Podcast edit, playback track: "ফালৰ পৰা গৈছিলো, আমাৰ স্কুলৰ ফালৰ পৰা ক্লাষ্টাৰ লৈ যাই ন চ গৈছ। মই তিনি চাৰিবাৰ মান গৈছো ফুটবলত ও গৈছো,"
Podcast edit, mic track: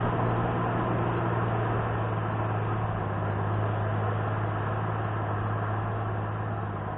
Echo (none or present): none